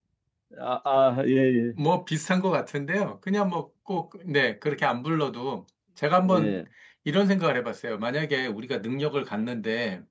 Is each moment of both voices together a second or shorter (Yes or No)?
Yes